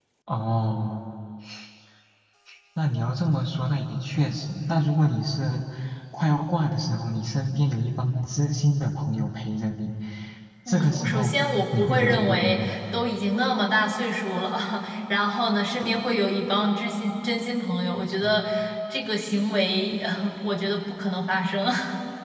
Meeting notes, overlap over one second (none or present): present